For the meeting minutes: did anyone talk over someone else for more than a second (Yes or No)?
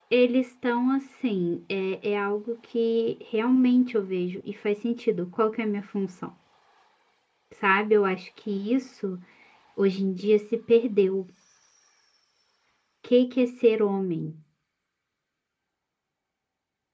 No